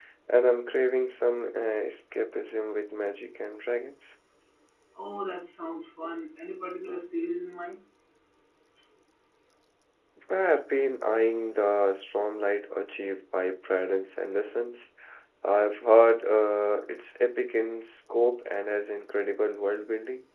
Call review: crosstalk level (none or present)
none